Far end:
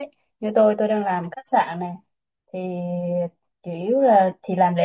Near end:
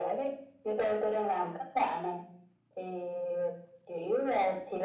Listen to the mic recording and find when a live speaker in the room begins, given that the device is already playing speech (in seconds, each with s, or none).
none